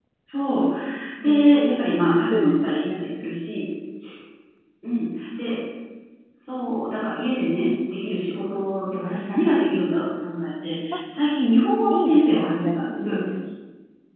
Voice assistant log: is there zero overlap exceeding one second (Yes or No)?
No